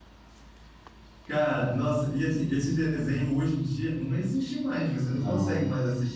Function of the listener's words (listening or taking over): listening